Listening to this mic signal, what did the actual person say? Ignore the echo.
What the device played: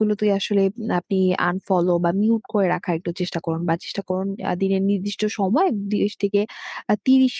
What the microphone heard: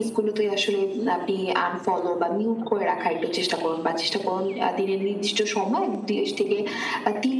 none

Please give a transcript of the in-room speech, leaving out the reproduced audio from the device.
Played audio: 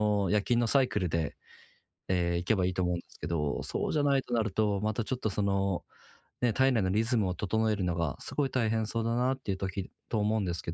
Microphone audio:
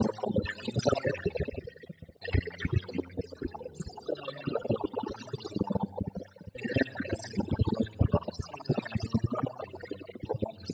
none

